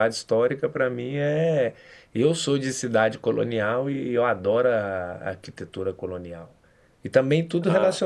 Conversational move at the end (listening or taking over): listening